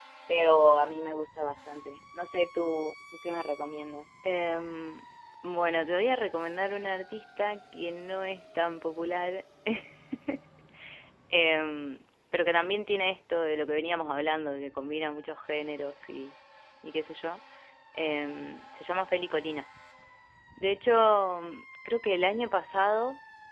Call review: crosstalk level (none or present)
none